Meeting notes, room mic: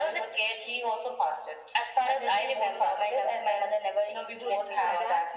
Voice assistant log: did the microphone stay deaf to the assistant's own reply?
No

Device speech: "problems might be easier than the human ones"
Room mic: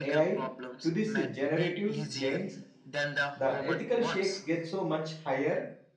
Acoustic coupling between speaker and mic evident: Yes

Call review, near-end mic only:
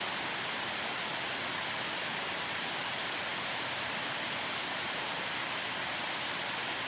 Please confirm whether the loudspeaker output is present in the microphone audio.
No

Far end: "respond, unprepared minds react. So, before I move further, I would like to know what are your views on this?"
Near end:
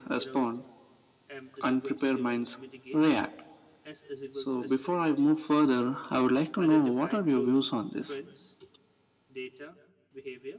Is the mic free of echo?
No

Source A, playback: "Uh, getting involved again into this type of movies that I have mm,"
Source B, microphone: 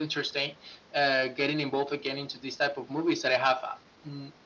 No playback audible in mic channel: No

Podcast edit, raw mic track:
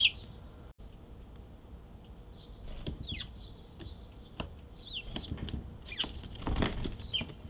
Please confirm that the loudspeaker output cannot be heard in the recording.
Yes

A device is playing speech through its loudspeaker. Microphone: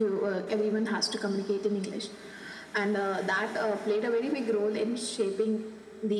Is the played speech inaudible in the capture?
No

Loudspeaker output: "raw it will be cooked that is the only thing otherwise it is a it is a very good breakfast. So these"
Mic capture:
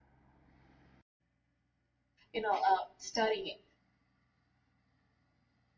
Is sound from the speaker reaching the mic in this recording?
No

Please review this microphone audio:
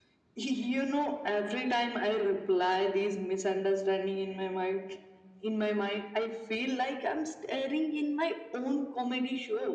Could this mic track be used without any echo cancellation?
No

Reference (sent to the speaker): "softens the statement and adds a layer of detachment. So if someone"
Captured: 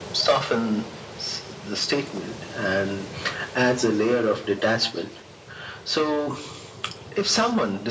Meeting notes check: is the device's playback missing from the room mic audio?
No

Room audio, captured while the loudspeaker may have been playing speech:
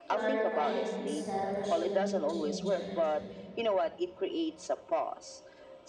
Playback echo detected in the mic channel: Yes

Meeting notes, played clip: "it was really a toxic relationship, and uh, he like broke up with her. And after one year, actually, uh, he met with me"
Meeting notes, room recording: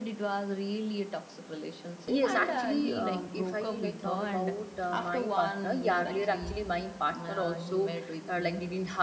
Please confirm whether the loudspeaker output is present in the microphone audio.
Yes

